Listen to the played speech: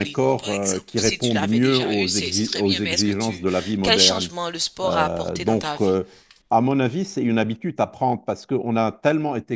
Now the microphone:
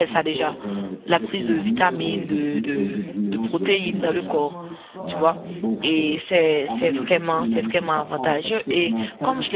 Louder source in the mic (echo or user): user